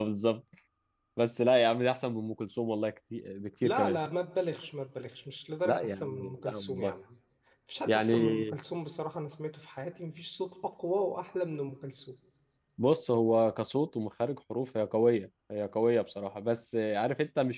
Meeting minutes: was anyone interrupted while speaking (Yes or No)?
Yes